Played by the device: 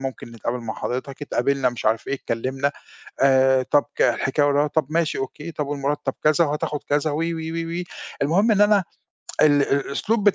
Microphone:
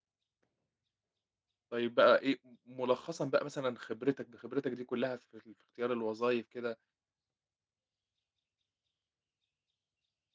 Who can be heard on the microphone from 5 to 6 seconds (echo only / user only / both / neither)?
user only